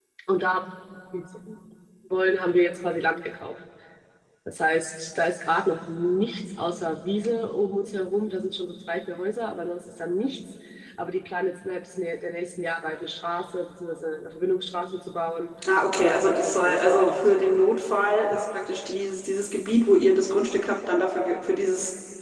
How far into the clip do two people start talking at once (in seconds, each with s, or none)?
16.0 s